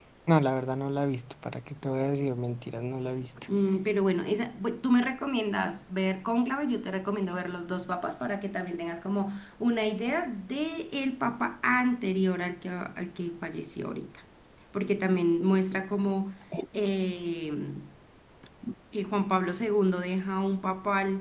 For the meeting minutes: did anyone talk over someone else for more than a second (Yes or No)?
No